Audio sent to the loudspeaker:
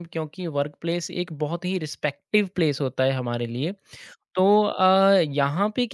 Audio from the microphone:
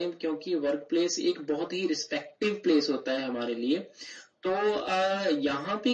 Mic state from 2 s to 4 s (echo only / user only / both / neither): echo only